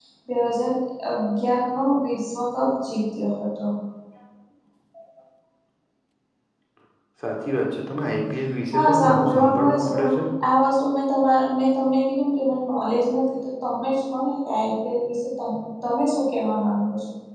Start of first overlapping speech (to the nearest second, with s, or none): 9 s